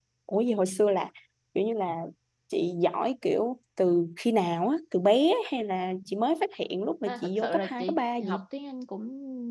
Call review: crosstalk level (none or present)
present